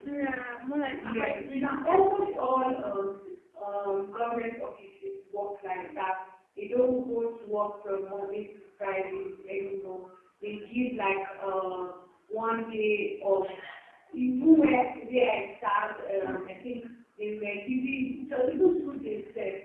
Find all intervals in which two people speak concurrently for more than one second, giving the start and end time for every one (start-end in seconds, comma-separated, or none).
1.0-2.3